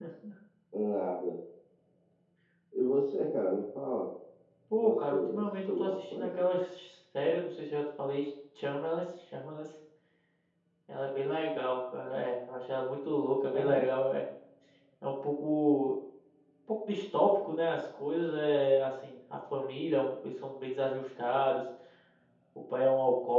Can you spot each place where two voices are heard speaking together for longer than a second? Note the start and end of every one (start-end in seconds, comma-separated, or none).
4.8-6.3